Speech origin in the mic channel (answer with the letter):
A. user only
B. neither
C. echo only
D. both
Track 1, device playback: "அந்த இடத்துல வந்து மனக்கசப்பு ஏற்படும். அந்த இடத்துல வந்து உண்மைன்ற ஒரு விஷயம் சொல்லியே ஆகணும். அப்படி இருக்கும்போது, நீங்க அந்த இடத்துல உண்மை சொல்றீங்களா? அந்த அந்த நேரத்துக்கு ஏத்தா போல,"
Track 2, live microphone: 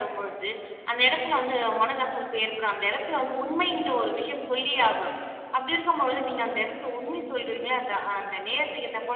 C